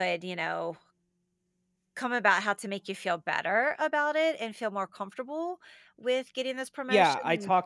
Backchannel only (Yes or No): No